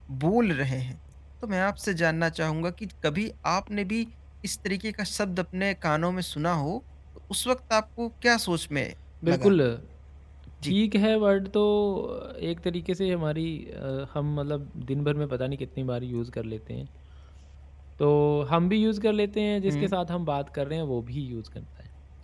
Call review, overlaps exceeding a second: none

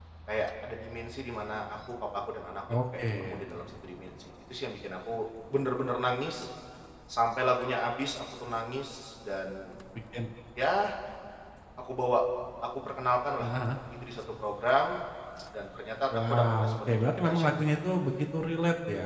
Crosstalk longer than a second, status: present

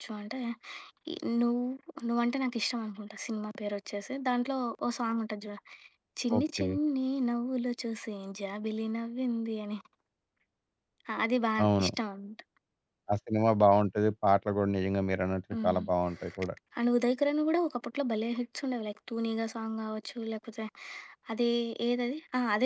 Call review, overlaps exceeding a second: none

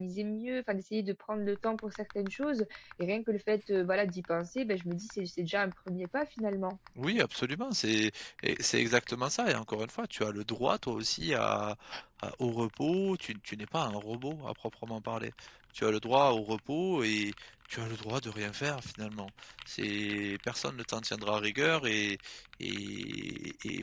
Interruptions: none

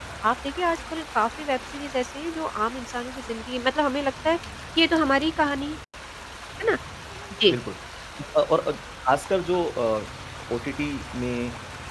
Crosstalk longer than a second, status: none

